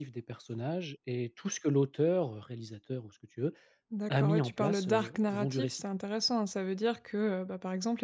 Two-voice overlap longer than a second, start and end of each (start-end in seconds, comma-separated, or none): 4.2-5.8